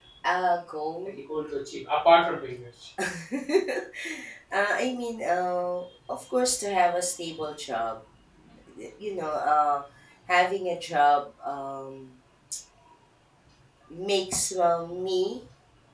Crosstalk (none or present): none